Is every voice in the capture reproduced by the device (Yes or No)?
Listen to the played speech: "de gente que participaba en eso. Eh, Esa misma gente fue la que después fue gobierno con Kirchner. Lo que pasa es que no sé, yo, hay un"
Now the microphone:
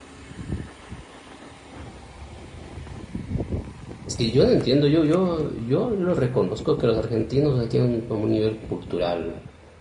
No